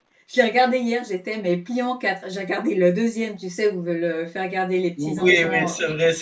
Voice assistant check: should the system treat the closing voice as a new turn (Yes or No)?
Yes